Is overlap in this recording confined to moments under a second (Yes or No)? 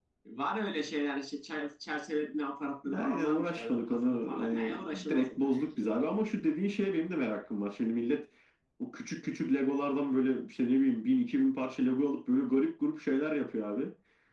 No